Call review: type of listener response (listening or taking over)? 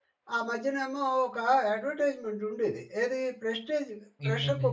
listening